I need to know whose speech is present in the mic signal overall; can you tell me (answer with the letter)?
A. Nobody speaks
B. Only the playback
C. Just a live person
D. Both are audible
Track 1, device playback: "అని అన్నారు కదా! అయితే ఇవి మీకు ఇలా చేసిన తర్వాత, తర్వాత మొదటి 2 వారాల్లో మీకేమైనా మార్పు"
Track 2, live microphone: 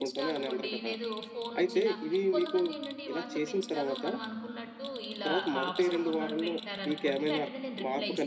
D